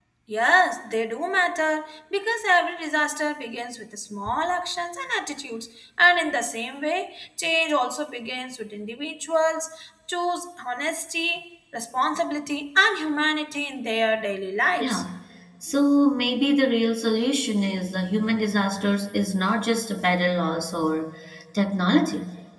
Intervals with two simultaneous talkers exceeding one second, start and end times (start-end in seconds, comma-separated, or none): none